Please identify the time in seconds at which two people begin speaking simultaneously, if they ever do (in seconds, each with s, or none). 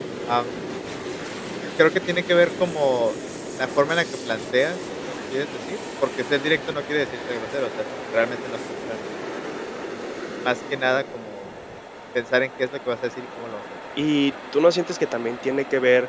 none